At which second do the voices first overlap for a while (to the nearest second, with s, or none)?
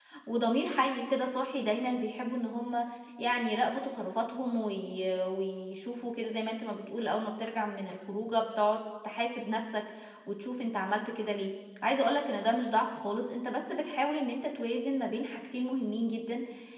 none